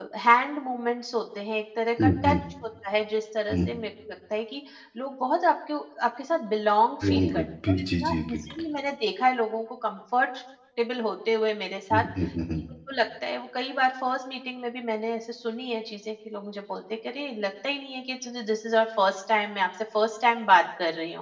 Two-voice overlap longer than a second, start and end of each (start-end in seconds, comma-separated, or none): 7.0-8.4